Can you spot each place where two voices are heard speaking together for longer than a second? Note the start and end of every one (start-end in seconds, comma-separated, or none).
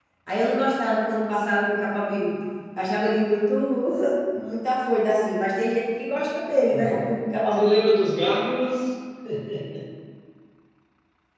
none